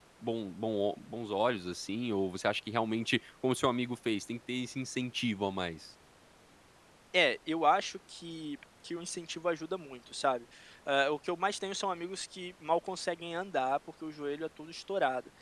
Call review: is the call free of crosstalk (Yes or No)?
Yes